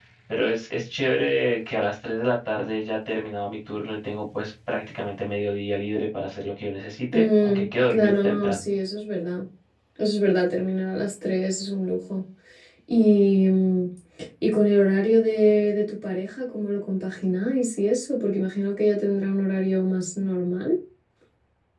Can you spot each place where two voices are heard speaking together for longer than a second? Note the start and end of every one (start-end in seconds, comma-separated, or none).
7.1-8.7